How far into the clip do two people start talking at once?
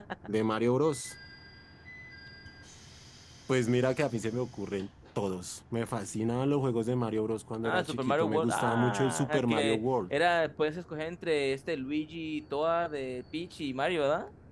8 s

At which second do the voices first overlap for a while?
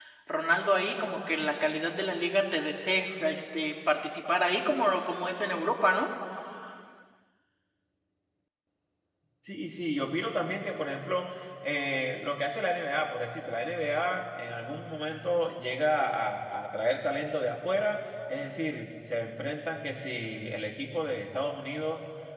none

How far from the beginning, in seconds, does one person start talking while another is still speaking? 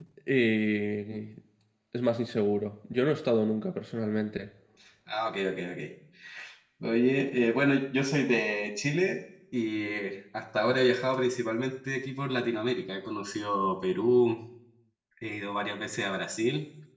none

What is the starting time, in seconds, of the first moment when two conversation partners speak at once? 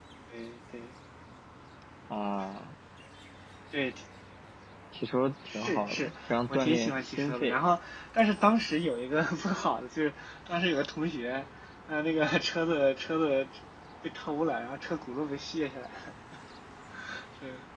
5 s

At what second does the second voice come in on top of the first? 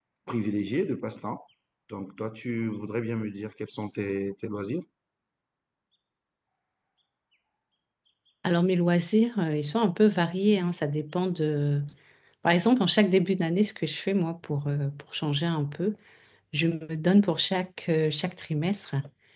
none

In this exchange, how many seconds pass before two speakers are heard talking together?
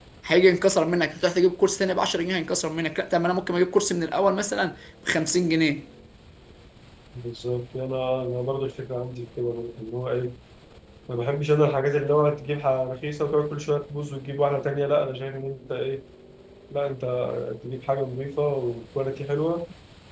none

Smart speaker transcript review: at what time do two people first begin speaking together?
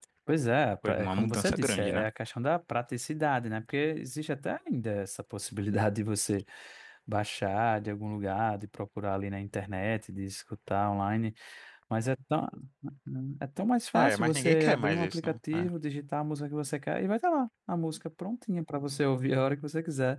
1 s

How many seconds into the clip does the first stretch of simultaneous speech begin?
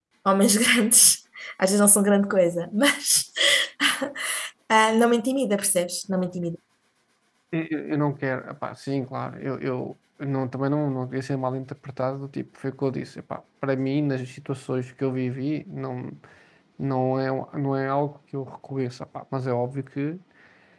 none

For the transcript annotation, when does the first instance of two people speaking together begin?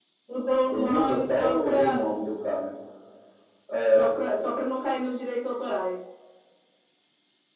1 s

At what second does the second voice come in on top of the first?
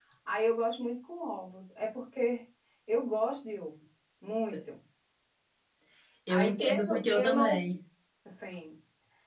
6 s

